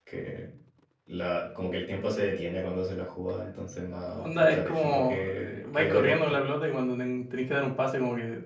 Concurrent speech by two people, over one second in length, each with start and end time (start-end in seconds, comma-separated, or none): 4.2-6.3